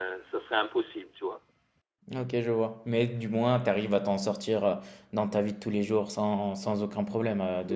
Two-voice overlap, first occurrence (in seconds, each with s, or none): none